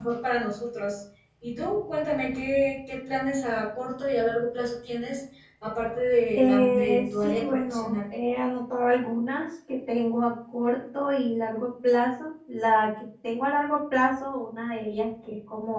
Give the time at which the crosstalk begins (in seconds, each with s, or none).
6.3 s